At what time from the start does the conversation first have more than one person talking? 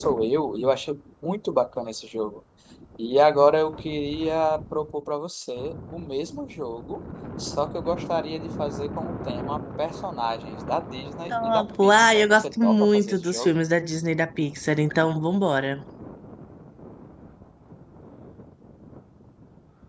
11.3 s

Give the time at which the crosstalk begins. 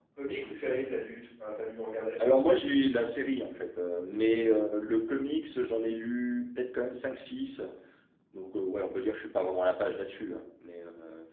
none

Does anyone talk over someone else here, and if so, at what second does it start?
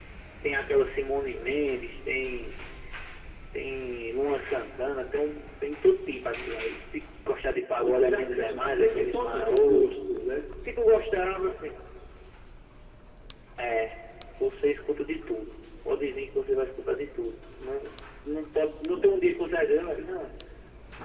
7.8 s

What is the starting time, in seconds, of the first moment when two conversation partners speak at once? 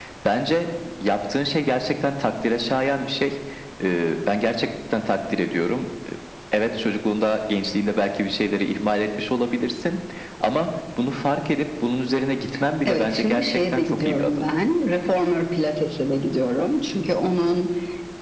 12.8 s

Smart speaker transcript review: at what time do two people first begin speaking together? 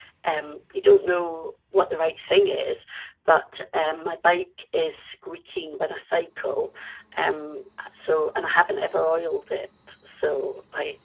none

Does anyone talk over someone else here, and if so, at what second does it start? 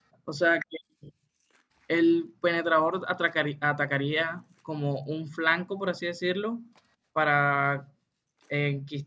none

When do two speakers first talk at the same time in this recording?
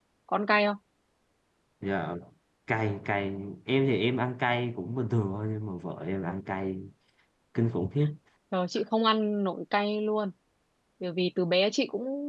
none

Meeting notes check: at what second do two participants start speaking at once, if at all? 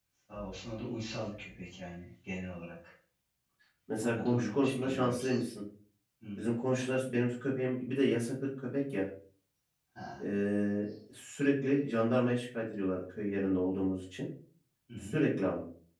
4.0 s

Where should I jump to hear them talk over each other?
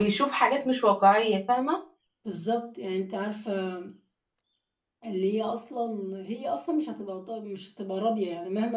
none

